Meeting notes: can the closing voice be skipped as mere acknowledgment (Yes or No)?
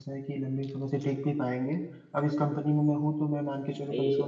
Yes